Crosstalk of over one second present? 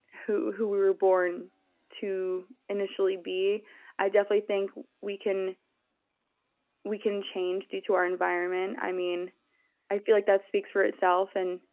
No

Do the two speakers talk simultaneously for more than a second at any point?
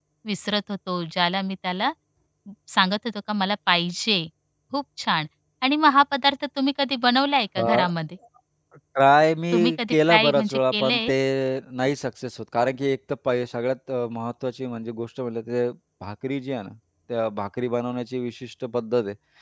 Yes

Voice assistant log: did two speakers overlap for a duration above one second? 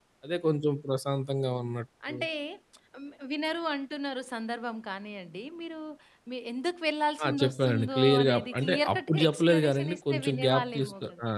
Yes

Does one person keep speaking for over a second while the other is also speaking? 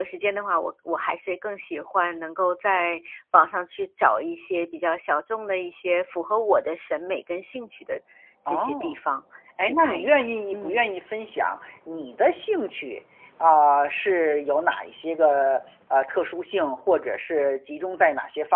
Yes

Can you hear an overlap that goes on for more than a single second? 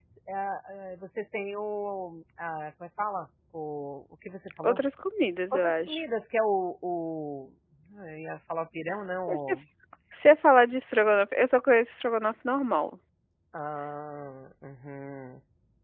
No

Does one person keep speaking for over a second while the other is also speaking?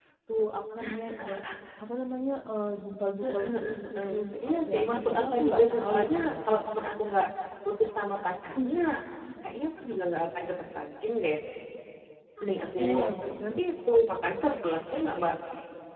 Yes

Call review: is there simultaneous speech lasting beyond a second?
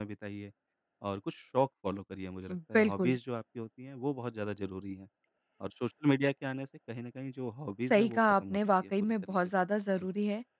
Yes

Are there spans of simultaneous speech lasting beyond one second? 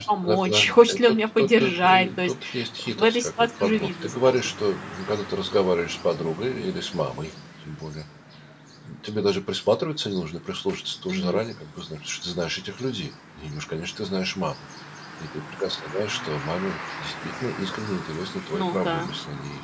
Yes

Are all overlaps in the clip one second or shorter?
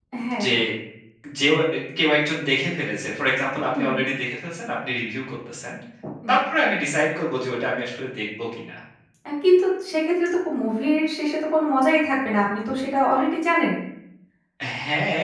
Yes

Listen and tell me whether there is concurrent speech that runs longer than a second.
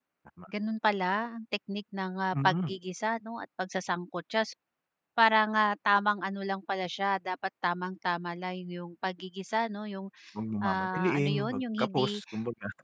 Yes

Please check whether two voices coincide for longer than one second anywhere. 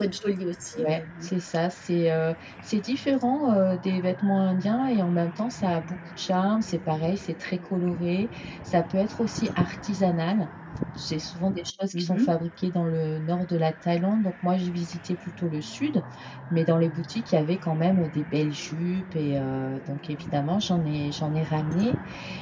No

